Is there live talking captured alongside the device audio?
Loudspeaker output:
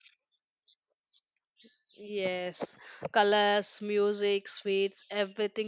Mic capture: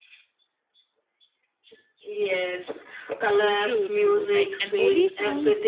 Yes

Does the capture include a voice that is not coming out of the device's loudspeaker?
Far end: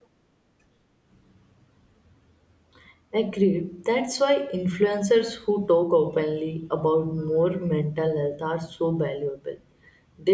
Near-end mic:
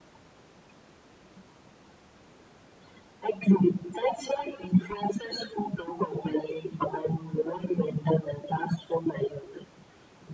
No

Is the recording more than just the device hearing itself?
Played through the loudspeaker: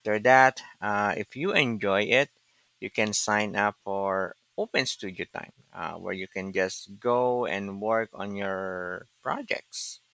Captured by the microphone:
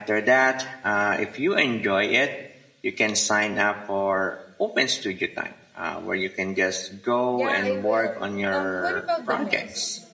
Yes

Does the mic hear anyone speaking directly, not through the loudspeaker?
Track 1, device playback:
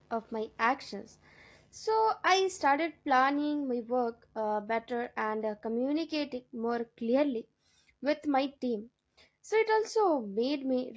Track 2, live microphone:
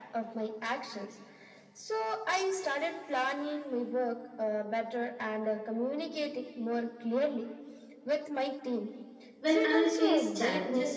Yes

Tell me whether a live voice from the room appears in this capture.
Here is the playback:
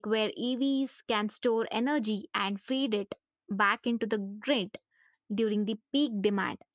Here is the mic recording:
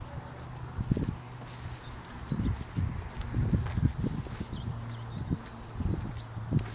No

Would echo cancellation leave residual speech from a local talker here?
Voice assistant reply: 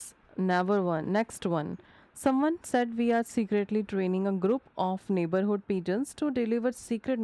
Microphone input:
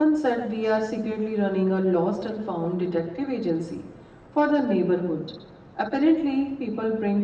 Yes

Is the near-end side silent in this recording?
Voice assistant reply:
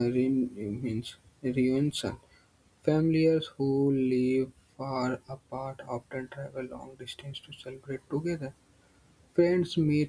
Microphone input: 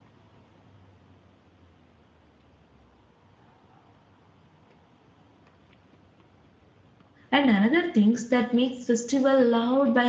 No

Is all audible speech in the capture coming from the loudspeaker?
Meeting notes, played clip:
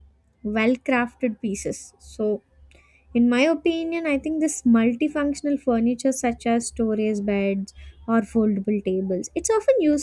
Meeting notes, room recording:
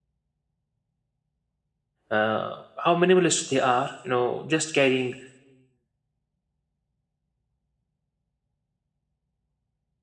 No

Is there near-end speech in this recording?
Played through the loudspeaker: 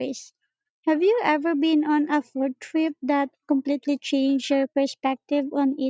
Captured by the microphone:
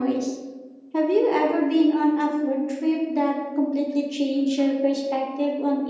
No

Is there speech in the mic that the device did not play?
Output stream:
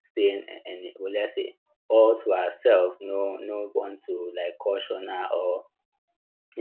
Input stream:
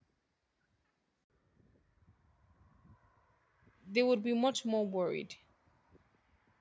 Yes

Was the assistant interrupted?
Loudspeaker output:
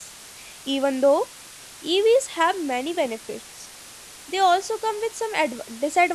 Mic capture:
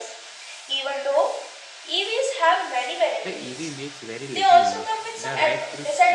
Yes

